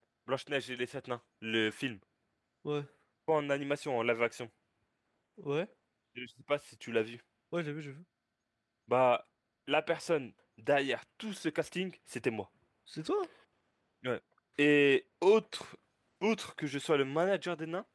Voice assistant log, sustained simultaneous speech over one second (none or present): none